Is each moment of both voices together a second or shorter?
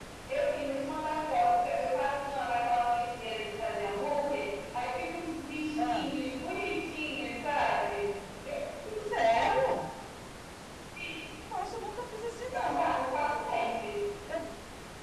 Yes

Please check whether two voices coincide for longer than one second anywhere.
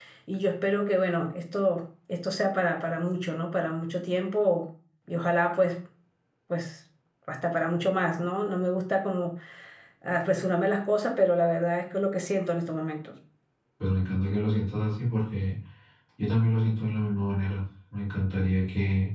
No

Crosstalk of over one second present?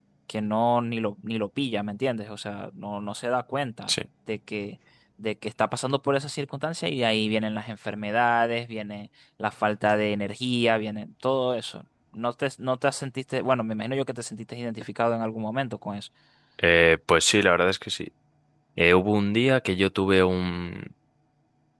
No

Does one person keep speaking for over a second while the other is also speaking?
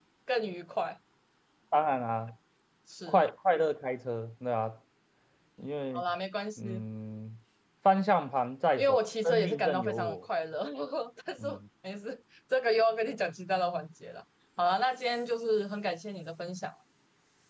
Yes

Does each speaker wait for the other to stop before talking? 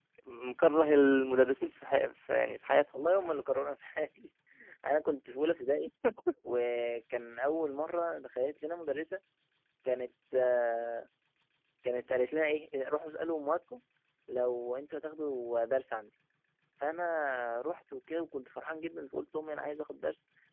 Yes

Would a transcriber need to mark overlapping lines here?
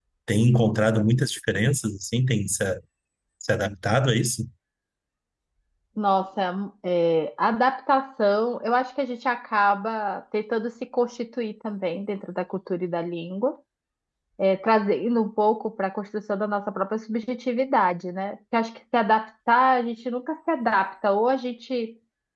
No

